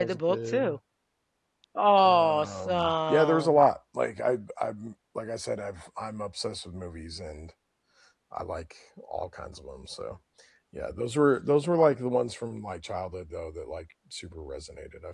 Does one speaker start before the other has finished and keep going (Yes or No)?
Yes